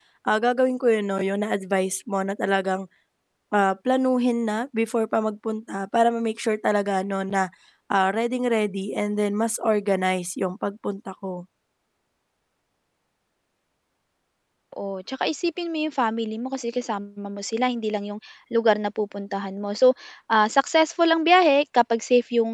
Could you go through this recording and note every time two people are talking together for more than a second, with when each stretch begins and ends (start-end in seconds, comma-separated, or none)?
none